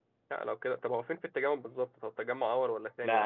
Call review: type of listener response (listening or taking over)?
taking over